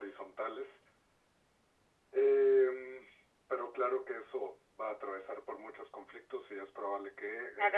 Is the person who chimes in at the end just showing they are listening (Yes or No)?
No